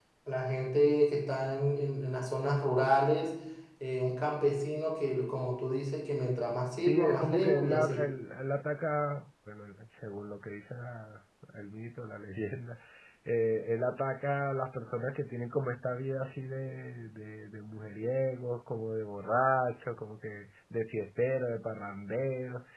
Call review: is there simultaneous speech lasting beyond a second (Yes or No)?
Yes